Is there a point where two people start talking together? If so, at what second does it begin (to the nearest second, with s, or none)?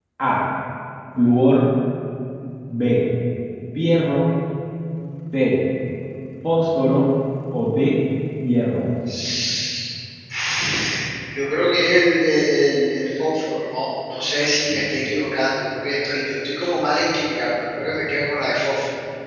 none